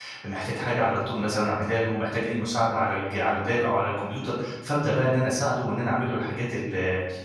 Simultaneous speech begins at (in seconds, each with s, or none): none